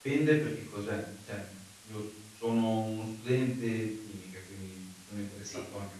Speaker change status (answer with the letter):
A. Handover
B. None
B